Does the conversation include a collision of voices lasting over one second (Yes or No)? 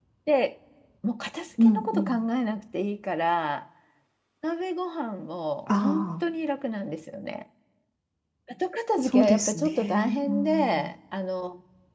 Yes